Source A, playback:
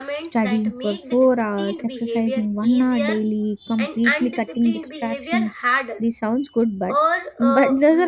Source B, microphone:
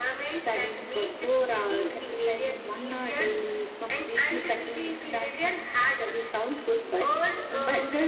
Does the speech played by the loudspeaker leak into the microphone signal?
Yes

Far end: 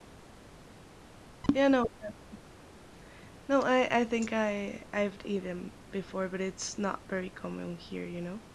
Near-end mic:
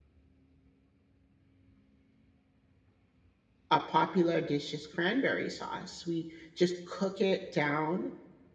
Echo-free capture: Yes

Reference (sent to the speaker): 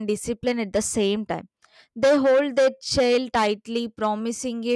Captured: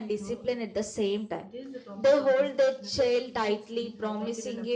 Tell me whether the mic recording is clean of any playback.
No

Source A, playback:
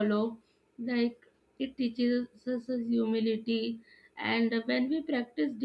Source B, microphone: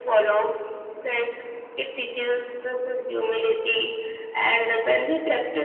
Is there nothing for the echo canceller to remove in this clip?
No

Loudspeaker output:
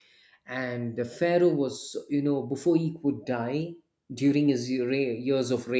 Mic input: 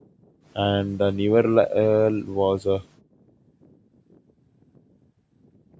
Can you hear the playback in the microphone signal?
No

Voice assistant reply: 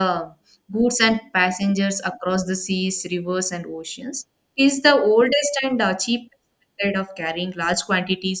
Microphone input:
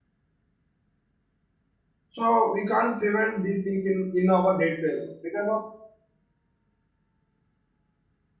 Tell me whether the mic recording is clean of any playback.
Yes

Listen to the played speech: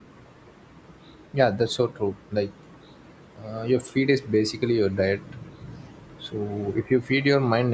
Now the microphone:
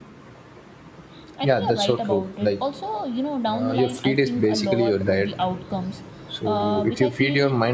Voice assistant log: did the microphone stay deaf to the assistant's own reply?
No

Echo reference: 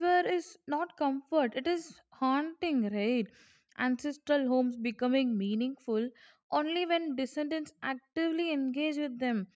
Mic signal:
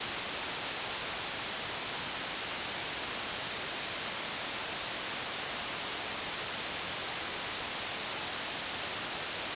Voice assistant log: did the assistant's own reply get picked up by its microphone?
No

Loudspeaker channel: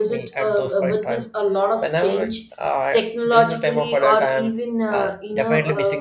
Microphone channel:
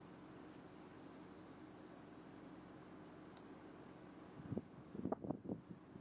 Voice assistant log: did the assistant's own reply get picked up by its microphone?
No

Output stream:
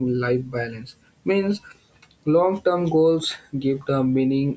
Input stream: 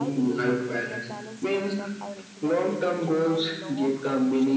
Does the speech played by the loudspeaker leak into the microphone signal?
Yes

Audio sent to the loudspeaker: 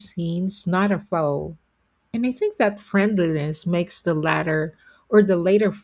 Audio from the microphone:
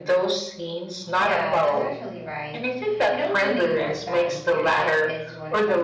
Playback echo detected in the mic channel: Yes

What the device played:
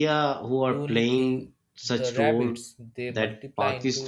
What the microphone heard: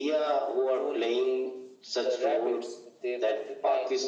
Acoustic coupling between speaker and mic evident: Yes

